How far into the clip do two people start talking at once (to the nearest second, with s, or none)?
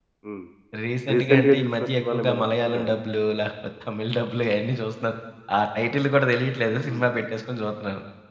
1 s